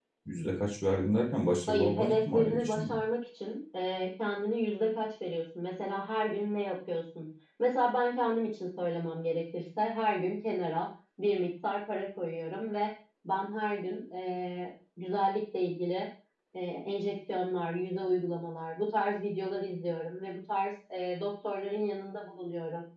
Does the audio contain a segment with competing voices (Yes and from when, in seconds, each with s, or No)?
Yes, from 1.7 s